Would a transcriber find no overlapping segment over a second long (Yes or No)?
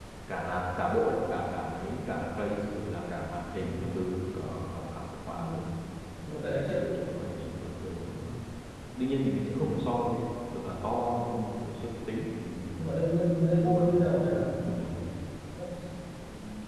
No